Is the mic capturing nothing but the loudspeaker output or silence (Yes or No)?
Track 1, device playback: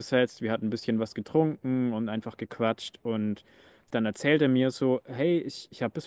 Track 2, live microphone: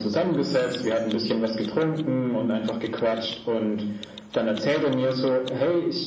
Yes